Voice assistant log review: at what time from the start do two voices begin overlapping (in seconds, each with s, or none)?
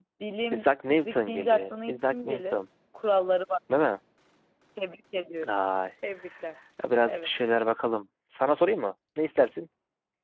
0.5 s